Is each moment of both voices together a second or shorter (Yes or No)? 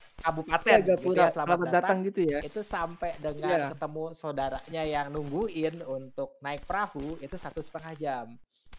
No